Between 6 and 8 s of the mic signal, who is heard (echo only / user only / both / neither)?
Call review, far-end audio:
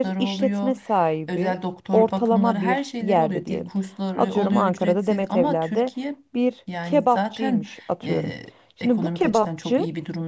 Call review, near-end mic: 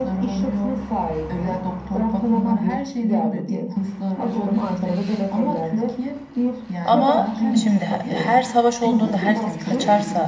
both